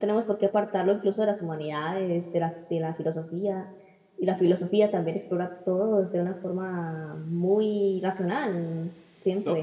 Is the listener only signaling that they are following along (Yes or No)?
No